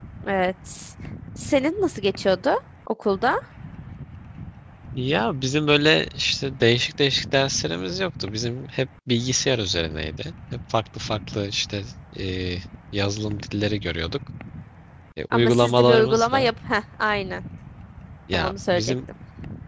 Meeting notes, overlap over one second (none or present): present